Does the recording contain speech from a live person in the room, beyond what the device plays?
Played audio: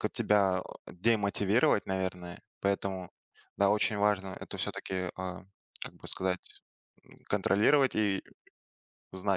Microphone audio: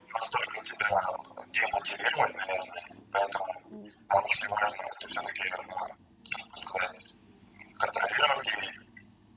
Yes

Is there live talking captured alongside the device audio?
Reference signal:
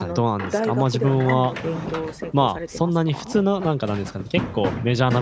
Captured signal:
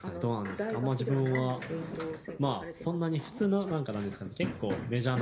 No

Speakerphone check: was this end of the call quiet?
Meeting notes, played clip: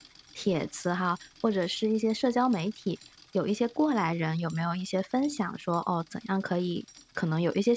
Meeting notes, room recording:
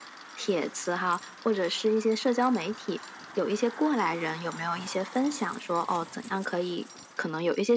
Yes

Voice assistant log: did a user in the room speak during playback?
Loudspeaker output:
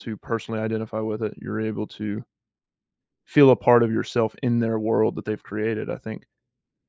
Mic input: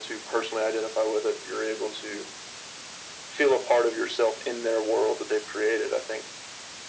No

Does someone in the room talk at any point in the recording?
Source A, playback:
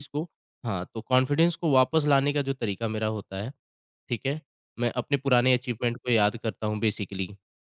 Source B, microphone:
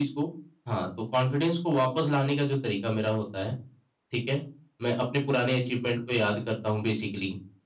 No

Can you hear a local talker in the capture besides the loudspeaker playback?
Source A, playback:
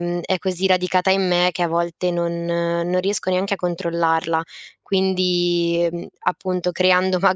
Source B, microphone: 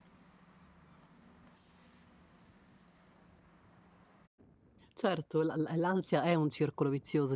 Yes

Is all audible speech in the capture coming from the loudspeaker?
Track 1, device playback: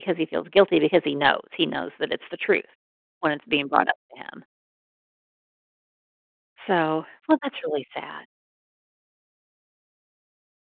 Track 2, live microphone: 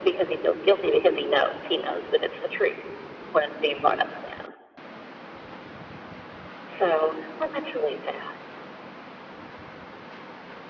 Yes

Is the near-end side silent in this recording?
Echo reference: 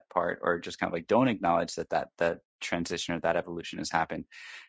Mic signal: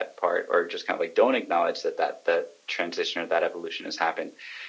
Yes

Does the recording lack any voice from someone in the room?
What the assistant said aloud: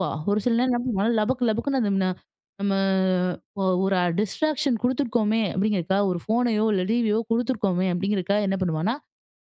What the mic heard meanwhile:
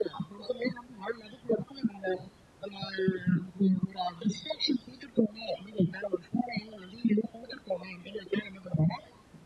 Yes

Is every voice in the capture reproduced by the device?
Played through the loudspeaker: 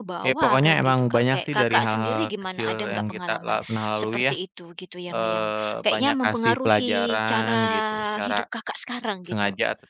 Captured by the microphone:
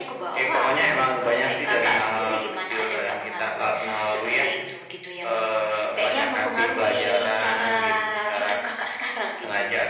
Yes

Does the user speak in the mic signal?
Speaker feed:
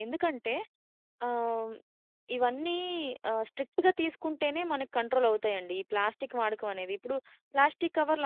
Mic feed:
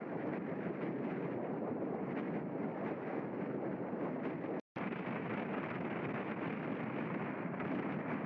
No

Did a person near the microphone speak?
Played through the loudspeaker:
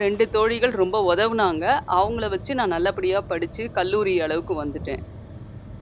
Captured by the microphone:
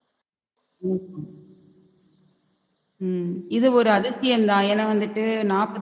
Yes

